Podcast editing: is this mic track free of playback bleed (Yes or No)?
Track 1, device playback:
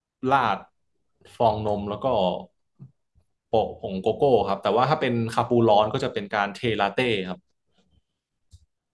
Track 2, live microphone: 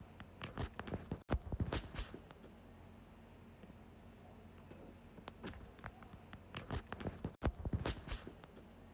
Yes